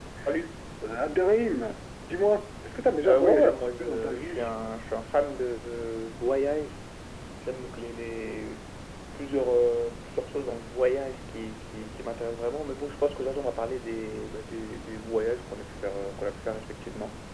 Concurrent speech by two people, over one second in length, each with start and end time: 3.0-4.5

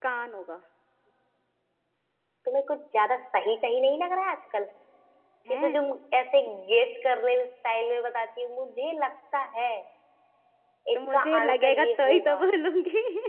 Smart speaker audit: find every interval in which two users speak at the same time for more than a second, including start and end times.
10.9-12.4

